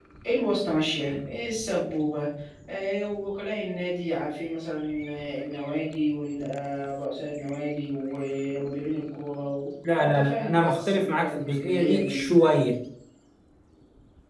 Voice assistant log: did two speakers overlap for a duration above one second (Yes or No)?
Yes